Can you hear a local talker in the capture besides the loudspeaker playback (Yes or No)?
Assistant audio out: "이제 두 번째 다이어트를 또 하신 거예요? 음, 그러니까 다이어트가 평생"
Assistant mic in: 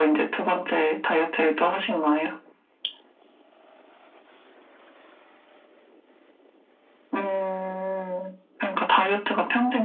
No